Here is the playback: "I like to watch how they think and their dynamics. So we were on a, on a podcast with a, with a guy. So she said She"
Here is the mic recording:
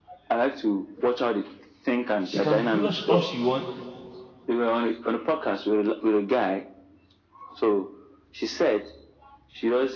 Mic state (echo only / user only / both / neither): both